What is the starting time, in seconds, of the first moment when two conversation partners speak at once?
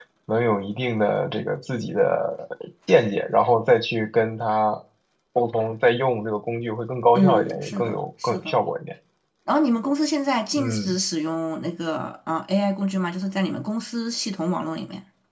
7 s

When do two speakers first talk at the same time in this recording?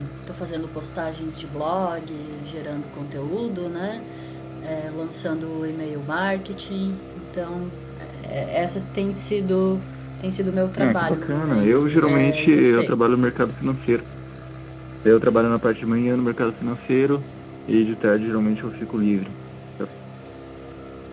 11 s

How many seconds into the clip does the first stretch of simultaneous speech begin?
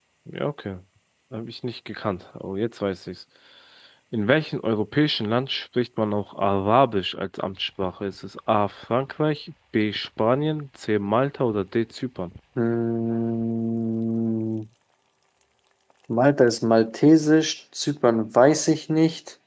none

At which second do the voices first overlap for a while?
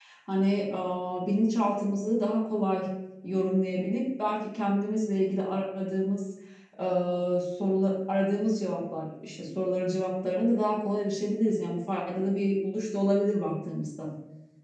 none

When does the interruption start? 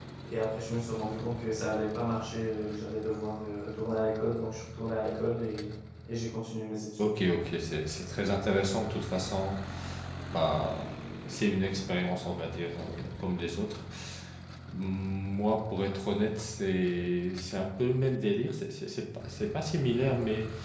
none

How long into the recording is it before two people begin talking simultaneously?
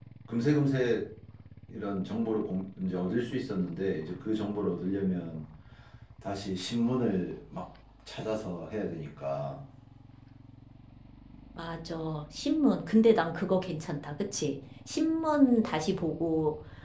none

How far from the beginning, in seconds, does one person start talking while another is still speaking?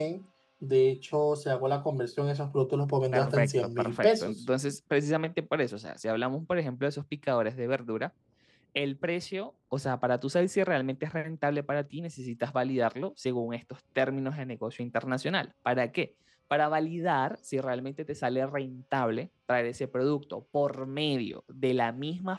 3 s

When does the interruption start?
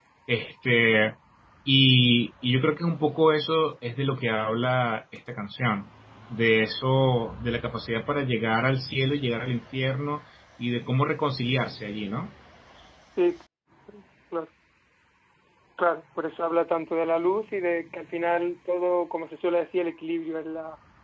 none

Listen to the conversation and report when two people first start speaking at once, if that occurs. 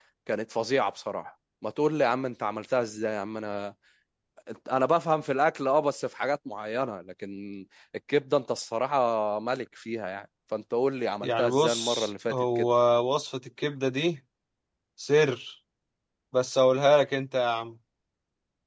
11 s

